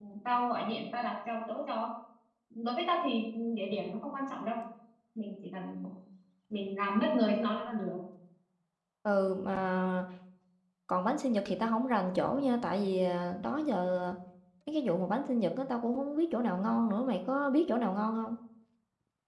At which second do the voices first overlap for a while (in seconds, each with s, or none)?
none